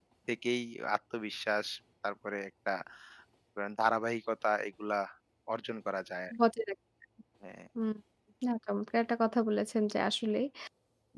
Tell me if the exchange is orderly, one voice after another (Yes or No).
Yes